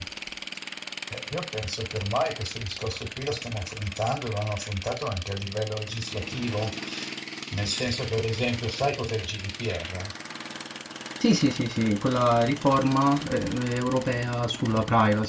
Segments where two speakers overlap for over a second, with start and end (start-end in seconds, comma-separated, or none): none